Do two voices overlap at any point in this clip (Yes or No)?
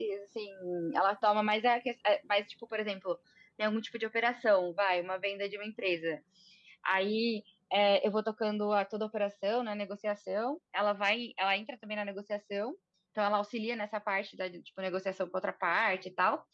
No